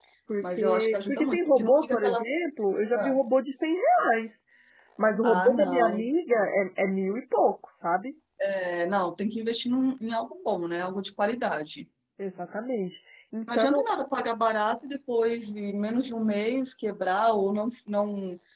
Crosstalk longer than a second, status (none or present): present